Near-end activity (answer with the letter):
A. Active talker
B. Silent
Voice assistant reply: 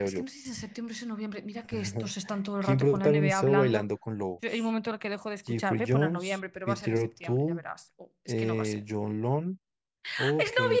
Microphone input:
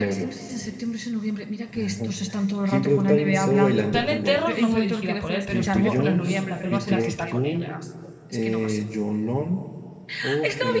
A